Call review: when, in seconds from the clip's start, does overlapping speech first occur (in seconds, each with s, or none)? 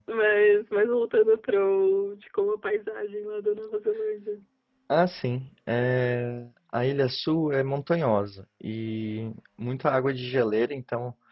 none